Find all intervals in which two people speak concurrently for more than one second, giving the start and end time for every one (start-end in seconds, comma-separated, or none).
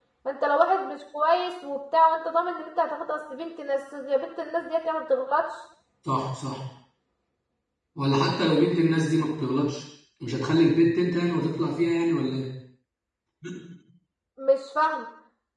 none